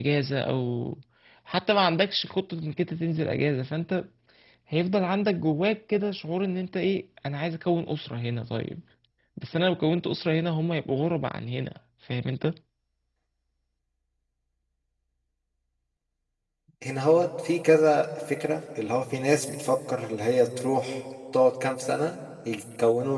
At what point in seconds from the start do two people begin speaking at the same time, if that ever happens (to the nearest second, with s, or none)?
none